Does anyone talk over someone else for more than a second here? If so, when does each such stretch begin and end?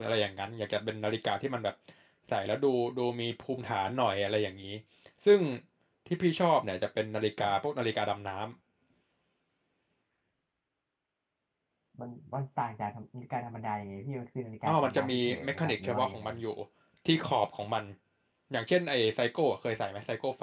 14.7-16.2

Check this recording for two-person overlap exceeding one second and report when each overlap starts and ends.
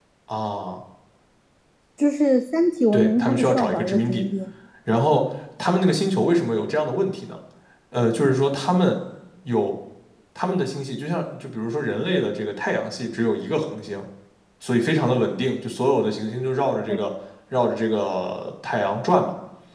2.9-4.2

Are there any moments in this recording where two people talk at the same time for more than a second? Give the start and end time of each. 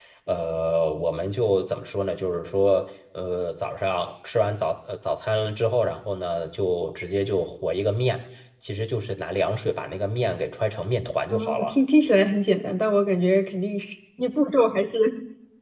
none

